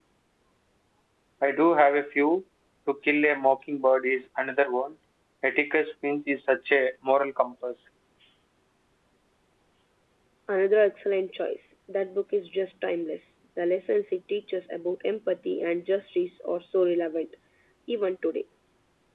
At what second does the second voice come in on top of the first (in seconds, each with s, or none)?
none